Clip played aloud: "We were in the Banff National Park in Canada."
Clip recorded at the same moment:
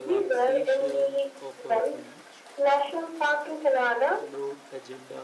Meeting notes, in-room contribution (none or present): present